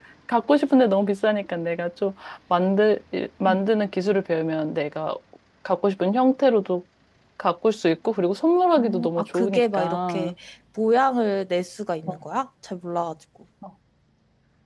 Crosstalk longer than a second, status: present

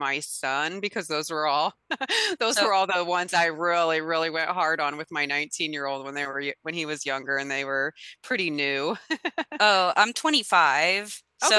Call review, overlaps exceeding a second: none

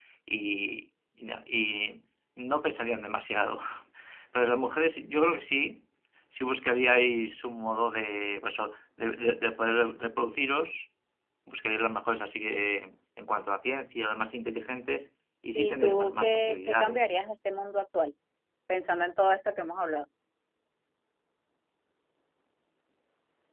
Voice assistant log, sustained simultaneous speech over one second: present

